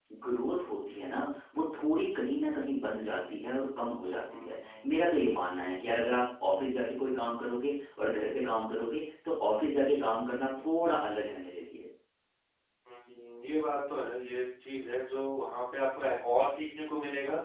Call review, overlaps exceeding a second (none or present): none